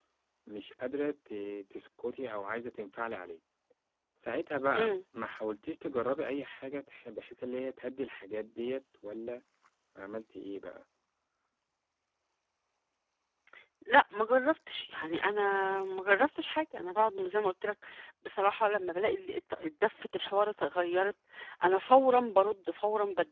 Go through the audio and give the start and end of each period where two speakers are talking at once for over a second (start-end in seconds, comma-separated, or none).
none